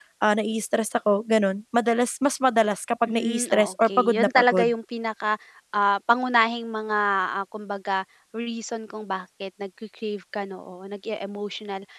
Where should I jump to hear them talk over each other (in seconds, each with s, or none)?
3.1 s